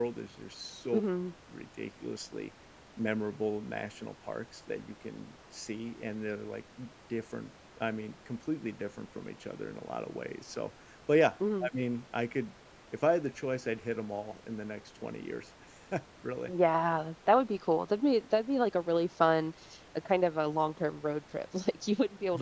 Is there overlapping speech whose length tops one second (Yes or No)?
No